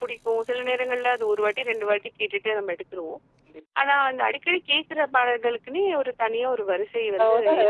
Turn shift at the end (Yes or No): Yes